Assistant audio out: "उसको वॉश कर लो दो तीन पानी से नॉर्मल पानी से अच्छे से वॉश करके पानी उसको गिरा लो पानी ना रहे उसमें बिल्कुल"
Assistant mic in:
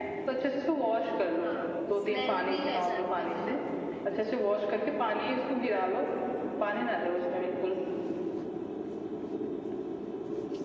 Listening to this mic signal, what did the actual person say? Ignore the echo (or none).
हाँ स्मेल भी रह जाती है फिर नाखून में